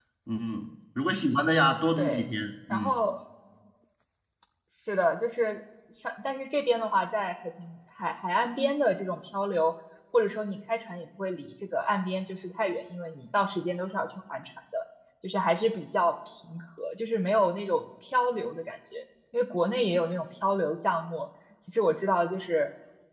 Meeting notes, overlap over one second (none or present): none